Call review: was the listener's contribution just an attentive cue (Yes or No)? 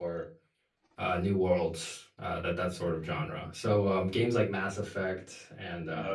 Yes